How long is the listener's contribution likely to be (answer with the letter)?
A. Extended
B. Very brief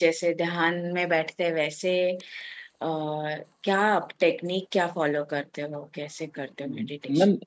A